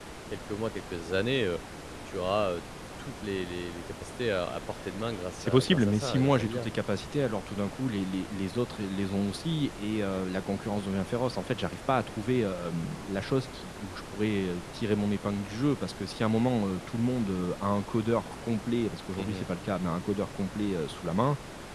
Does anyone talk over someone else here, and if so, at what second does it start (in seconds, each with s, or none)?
5.4 s